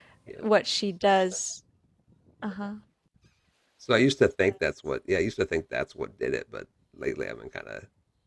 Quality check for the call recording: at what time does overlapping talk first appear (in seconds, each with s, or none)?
none